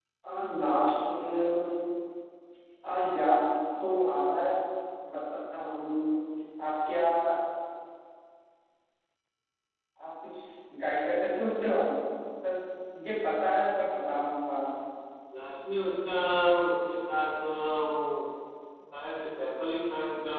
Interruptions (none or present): none